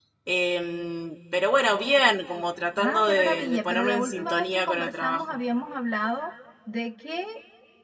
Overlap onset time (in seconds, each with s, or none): 2.8 s